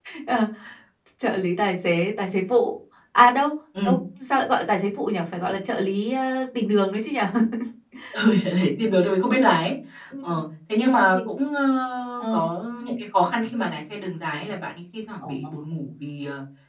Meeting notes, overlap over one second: none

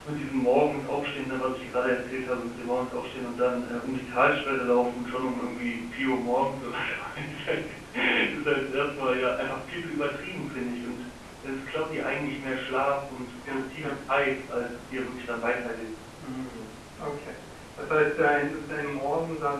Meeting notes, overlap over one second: none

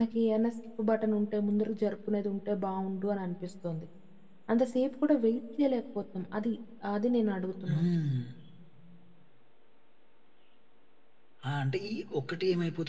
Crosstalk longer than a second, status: none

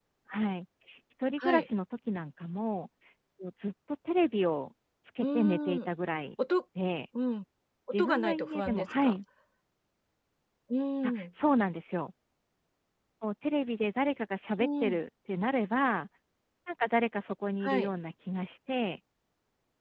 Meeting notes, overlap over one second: present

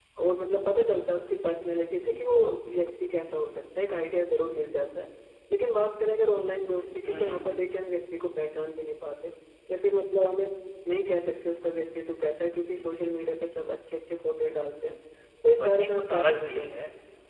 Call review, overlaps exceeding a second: present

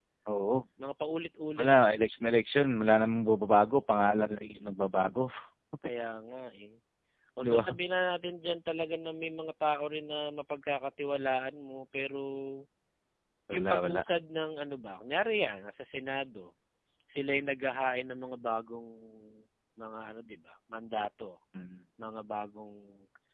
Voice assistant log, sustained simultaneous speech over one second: none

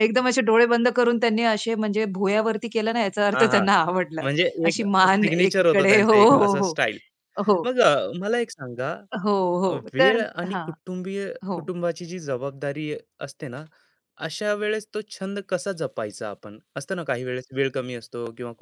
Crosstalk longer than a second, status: present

